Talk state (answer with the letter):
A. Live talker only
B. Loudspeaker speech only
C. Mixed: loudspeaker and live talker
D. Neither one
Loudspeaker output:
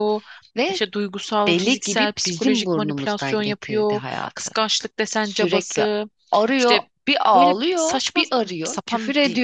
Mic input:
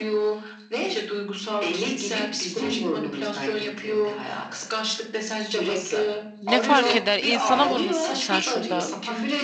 C